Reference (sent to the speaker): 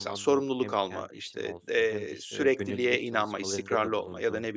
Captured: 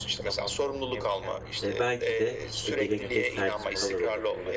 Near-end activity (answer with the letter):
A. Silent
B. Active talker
B